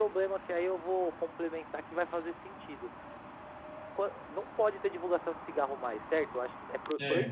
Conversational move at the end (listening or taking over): listening